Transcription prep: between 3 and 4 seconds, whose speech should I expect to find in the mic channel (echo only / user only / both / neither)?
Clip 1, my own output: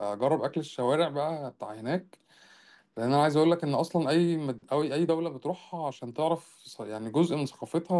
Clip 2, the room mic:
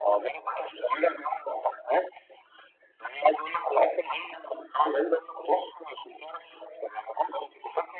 echo only